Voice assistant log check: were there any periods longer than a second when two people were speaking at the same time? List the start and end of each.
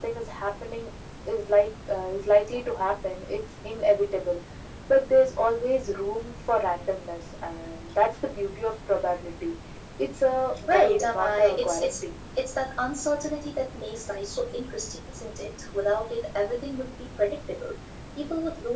10.8-12.0

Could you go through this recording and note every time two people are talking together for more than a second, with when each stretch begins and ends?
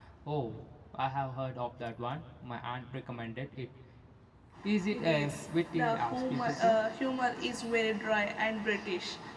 4.9-6.8

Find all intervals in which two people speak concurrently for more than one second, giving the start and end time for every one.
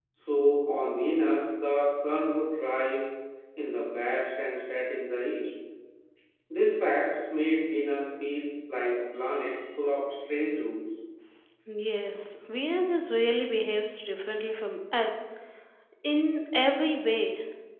none

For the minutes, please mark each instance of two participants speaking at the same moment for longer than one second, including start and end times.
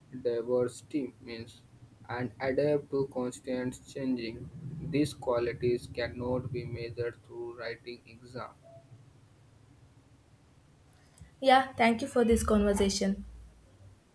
none

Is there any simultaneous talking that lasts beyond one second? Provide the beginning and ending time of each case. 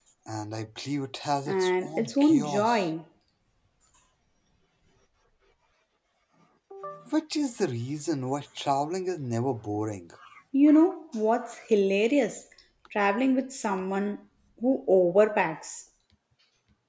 1.5-2.9

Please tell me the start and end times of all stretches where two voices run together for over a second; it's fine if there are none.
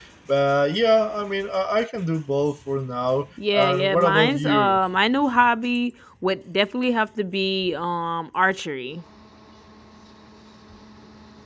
3.5-4.8

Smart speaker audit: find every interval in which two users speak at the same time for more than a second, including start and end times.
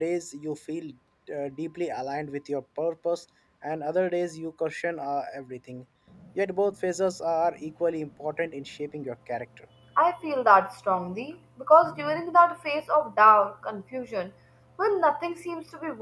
none

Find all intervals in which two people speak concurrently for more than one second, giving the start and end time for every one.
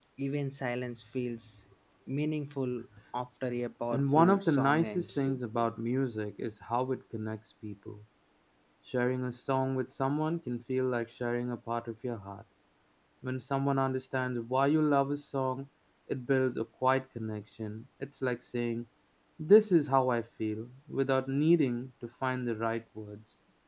3.9-5.4

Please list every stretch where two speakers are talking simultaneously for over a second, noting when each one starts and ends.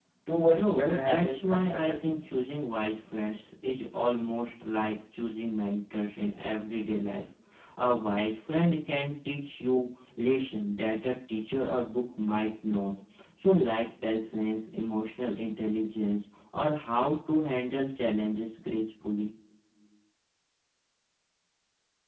0.5-2.1

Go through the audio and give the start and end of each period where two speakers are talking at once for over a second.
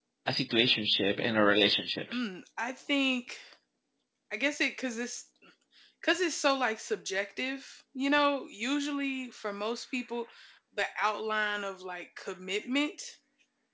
none

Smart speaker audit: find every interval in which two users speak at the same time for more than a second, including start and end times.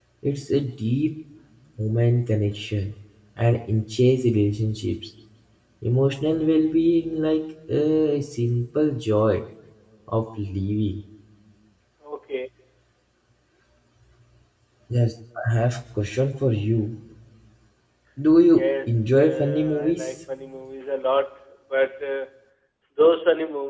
18.5-20.1

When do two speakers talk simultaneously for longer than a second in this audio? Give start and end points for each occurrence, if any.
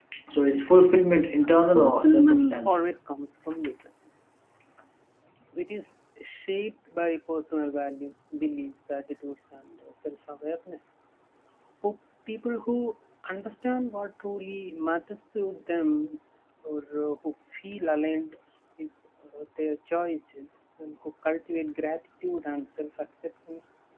1.6-2.9

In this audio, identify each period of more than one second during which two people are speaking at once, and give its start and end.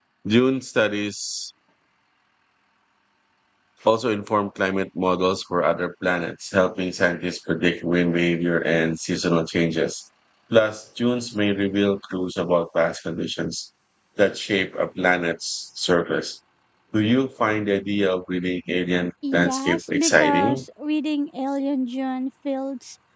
19.3-20.6

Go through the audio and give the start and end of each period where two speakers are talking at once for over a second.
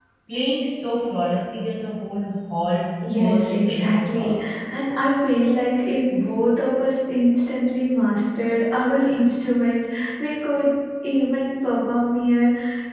3.1-4.5

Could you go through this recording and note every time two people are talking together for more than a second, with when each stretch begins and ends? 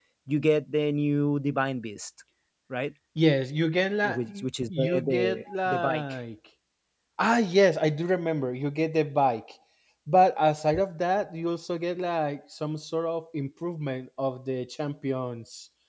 4.7-6.0

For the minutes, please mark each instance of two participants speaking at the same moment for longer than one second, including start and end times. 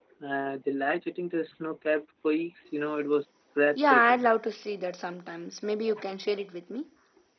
none

